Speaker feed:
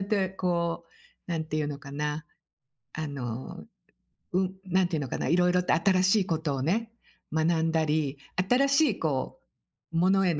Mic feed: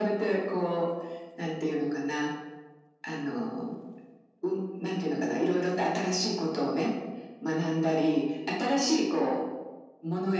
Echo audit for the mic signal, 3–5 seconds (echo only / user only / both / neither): echo only